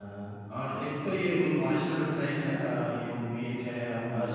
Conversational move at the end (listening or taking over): listening